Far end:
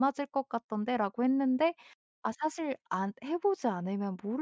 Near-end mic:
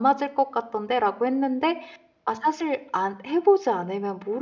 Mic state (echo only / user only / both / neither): echo only